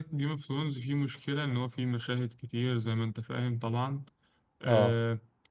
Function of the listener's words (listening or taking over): listening